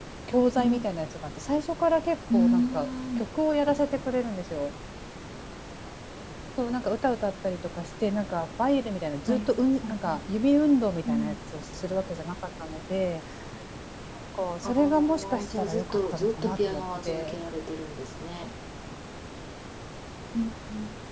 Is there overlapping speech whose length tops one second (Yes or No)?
Yes